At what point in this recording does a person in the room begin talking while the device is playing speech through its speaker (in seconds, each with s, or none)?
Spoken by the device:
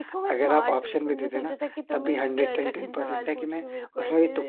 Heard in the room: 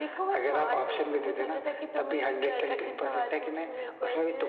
none